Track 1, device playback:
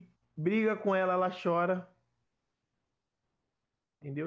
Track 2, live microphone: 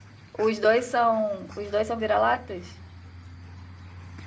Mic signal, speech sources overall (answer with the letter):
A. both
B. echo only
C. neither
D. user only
D